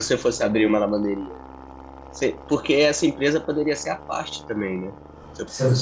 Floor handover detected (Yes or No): No